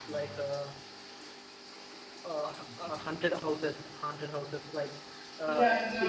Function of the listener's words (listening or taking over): taking over